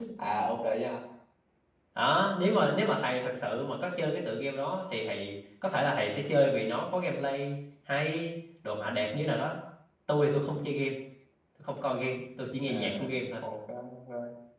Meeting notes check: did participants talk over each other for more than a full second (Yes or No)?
No